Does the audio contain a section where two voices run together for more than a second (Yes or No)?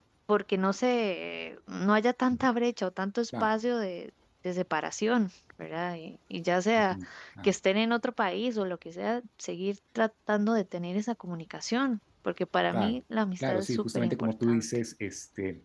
Yes